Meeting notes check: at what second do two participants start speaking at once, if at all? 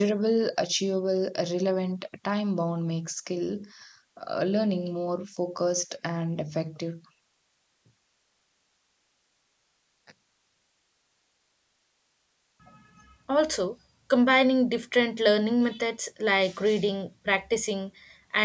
none

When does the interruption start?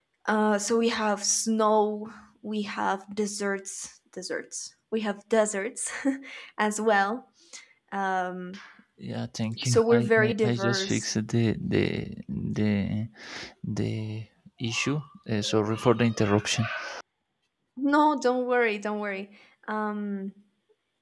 9.6 s

